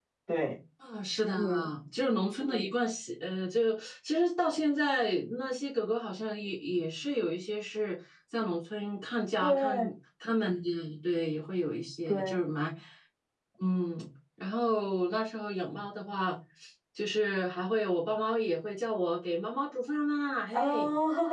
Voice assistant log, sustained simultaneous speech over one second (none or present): none